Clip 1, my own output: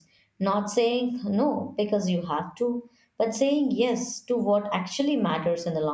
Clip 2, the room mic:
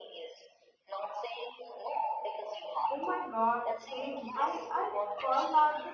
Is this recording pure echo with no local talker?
No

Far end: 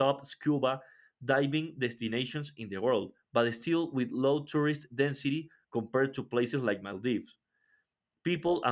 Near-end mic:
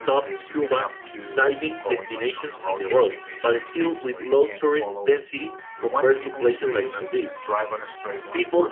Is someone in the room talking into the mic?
Yes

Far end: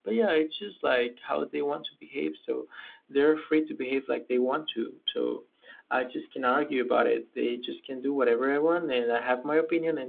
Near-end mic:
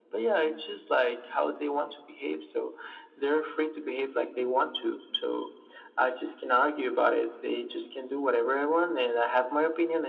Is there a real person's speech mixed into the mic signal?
No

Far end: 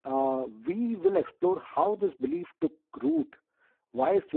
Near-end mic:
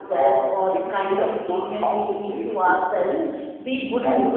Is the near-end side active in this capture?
Yes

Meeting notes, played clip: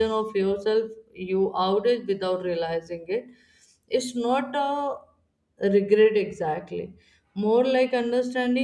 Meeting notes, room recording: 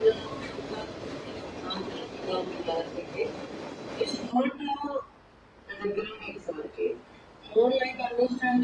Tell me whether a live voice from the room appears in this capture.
No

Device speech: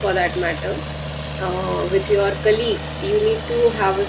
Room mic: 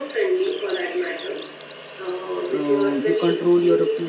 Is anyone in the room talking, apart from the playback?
Yes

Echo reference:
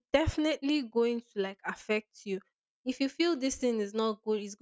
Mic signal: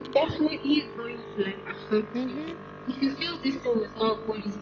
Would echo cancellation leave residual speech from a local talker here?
Yes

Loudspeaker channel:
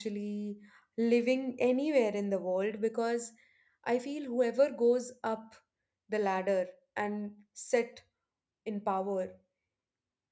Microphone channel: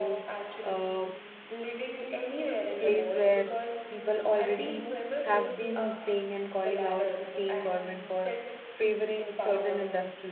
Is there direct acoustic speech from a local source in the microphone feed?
Yes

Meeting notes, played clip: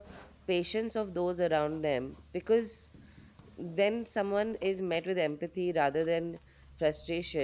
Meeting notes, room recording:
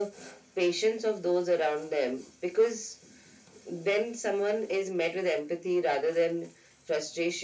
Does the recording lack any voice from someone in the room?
Yes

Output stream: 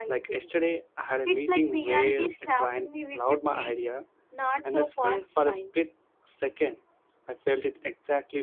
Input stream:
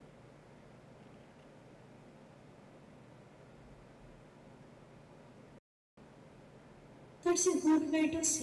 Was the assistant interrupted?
Yes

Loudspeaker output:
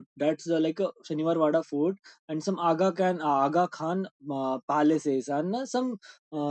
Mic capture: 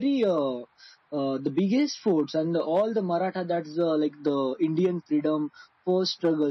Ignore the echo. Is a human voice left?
Yes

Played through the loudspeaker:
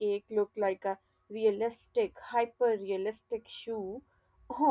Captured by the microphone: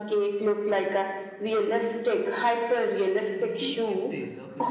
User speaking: Yes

